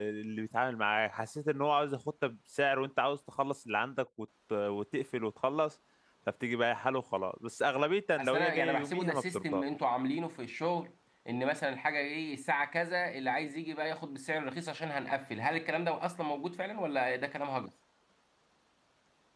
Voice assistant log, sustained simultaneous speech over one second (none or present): present